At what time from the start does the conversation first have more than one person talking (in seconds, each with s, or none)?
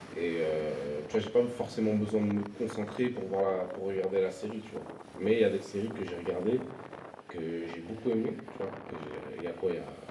none